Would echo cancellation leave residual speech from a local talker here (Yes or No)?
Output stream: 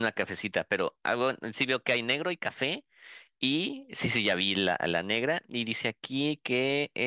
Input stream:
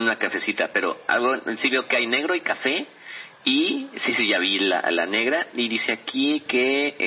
No